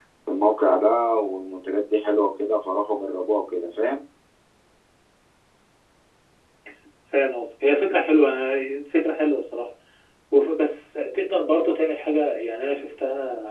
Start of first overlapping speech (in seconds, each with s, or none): none